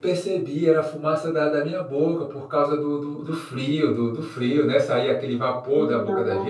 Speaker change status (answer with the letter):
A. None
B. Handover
A